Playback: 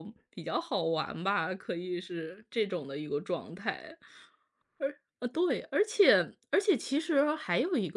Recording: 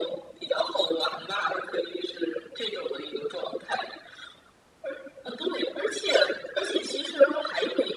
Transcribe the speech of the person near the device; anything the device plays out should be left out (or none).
none